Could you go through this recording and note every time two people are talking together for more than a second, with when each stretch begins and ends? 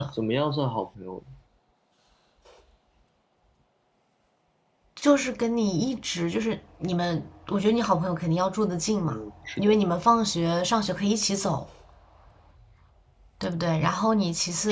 none

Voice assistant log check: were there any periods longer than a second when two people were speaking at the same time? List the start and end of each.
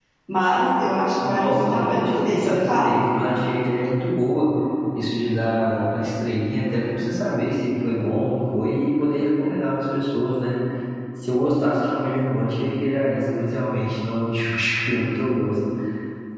1.3-2.9

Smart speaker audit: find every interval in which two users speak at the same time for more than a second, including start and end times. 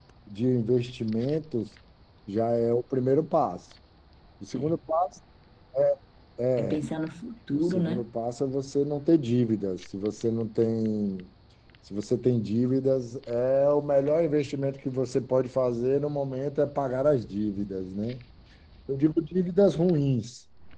none

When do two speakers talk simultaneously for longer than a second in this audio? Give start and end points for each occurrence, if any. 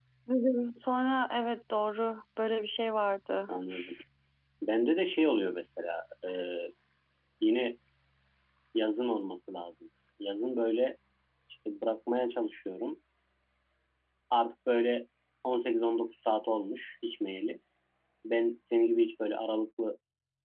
none

